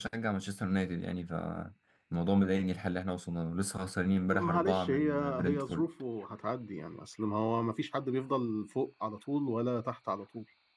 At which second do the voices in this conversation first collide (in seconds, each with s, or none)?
4.3 s